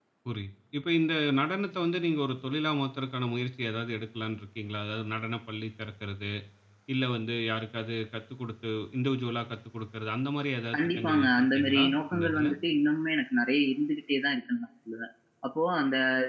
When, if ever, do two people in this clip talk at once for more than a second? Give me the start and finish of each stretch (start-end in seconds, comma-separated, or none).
10.7-12.5